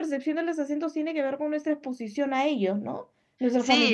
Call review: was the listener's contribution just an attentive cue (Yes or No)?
No